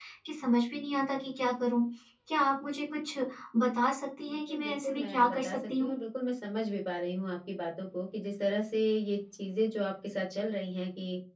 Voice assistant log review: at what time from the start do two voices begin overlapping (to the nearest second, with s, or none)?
4 s